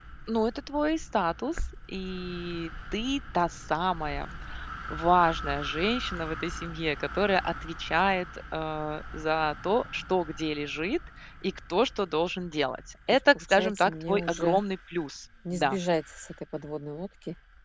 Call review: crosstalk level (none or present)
present